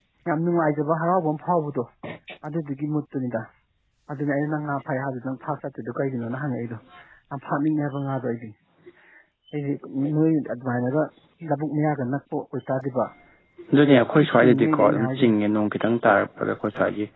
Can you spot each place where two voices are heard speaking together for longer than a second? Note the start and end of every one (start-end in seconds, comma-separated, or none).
13.8-15.3